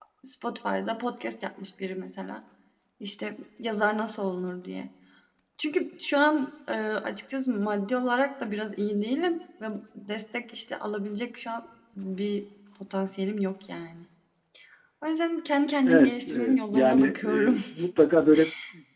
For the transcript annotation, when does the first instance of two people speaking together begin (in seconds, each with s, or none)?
15.8 s